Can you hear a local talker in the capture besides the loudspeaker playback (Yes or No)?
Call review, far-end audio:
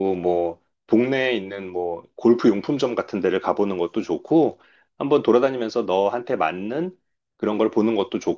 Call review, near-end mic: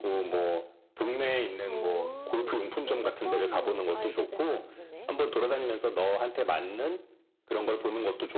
Yes